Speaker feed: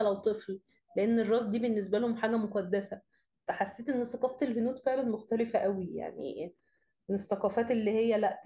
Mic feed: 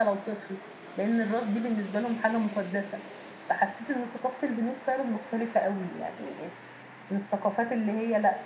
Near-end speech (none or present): none